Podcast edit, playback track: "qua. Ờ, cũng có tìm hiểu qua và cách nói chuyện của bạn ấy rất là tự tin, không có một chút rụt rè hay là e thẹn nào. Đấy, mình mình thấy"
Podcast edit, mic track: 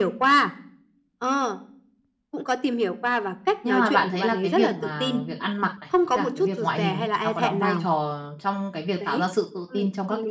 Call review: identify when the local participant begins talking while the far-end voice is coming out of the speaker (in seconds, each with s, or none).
3.6 s